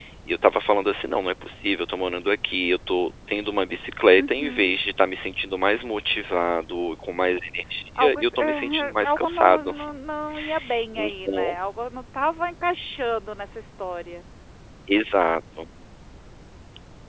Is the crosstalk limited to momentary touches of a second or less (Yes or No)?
No